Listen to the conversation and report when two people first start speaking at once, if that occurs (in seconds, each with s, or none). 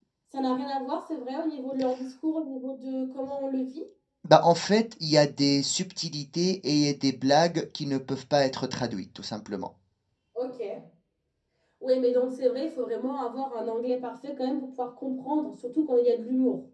none